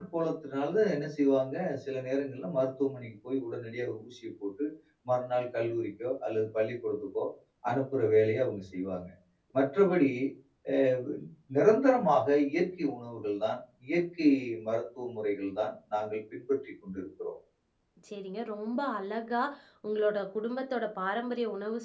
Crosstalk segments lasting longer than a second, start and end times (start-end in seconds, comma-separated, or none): none